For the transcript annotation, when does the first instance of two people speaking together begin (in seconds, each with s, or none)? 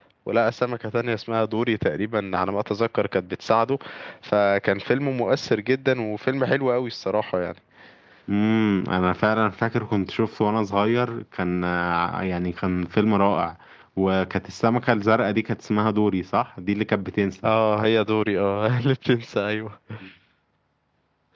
none